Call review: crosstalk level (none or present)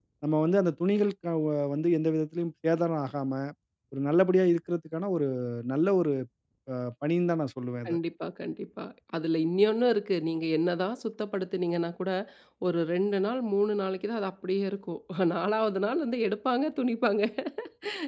none